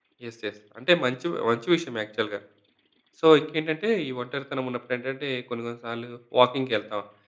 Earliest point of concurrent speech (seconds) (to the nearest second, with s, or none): none